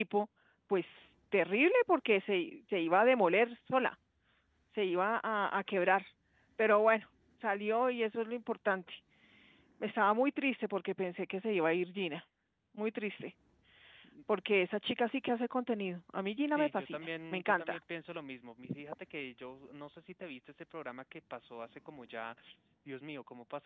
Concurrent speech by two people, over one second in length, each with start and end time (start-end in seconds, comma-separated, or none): 16.5-17.8